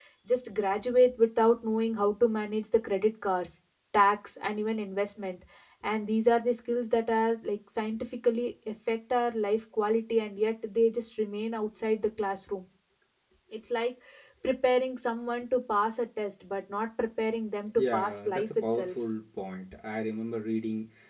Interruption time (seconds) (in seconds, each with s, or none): 17.8 s